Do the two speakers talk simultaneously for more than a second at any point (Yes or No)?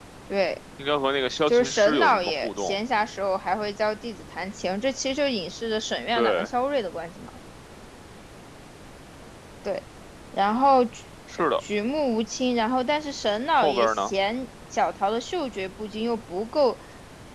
Yes